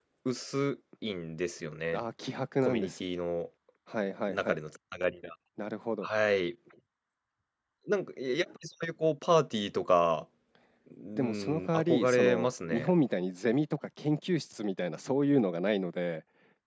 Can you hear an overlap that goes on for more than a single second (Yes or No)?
Yes